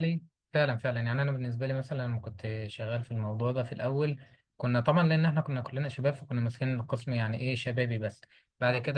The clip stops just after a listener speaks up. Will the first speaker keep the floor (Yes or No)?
Yes